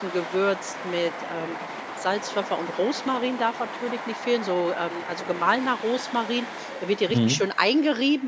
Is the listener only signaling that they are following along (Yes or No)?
Yes